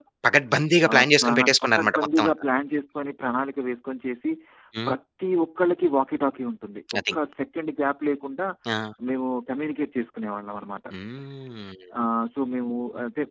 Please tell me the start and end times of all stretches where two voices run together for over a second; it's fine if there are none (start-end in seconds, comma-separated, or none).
0.9-2.3